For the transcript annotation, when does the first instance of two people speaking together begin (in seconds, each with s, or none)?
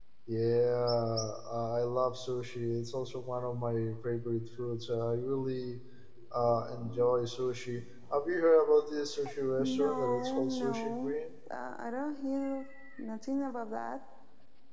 9.6 s